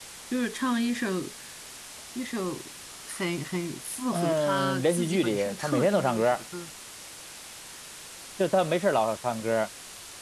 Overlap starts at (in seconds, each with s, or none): 4.1 s